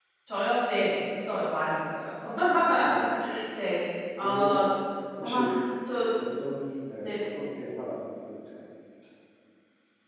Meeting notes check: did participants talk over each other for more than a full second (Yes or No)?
No